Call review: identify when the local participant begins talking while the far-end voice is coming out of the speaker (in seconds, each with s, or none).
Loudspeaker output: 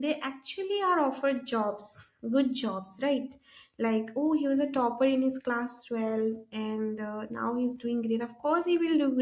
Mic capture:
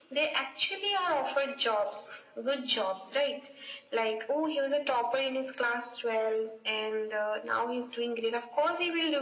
none